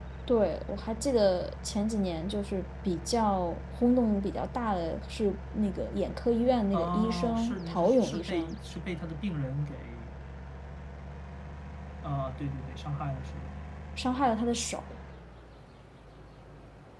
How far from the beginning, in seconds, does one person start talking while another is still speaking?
6.7 s

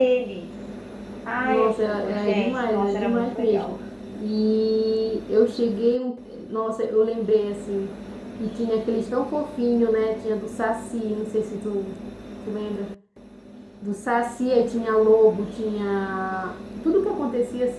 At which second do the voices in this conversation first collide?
1.4 s

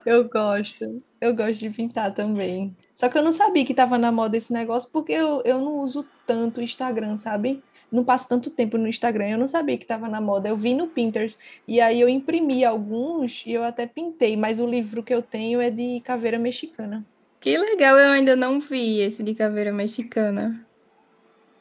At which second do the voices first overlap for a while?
none

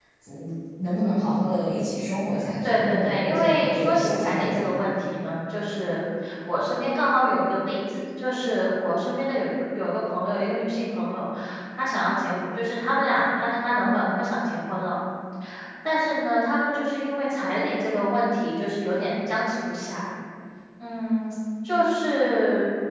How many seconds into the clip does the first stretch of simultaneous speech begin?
2.6 s

